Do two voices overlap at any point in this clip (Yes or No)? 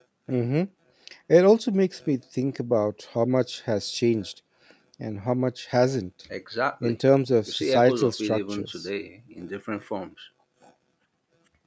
Yes